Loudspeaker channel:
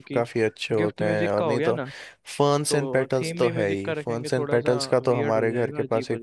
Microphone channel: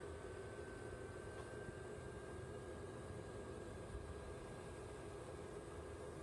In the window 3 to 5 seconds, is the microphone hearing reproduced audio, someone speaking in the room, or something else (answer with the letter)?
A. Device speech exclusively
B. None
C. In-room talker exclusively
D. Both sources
B